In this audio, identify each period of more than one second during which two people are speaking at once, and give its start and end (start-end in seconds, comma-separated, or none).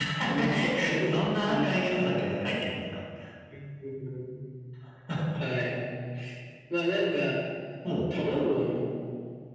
0.5-2.1